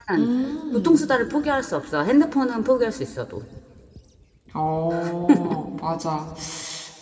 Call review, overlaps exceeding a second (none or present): none